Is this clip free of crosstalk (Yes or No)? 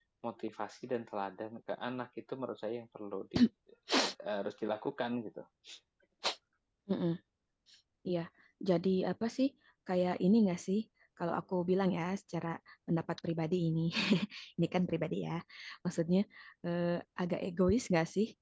Yes